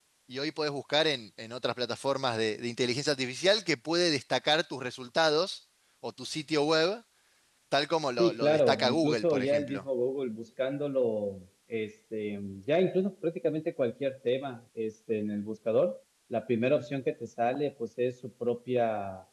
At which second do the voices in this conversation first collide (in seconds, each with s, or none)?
8.2 s